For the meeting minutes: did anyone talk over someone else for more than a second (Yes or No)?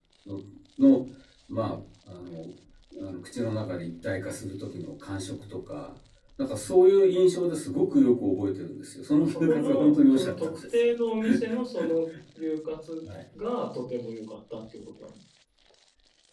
Yes